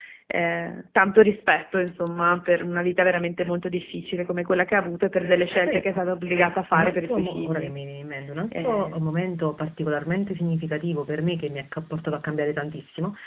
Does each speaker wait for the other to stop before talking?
No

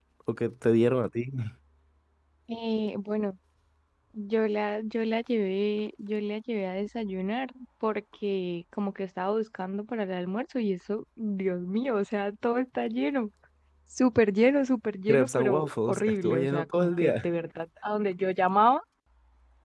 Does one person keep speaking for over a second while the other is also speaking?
Yes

